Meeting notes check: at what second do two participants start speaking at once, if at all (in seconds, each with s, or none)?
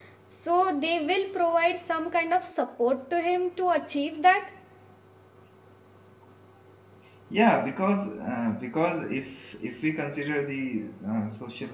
none